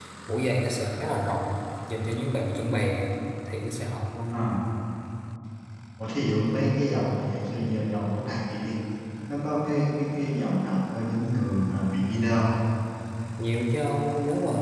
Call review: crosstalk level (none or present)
none